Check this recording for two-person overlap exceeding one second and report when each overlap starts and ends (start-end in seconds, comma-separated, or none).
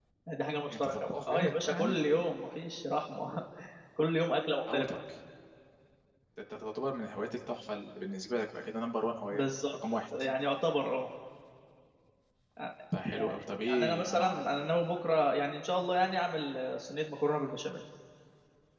0.7-2.0, 13.2-14.5